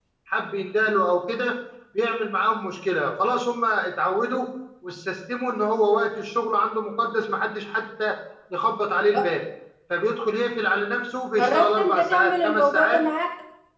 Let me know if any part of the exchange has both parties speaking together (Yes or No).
Yes